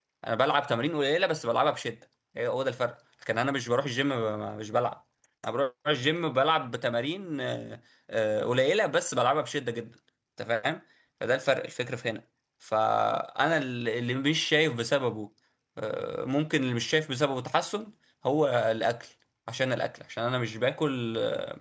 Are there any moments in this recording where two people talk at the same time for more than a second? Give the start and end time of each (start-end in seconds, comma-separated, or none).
none